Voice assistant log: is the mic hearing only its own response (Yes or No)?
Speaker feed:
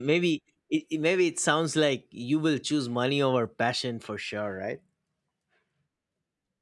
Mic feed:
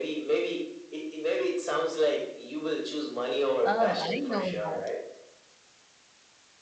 No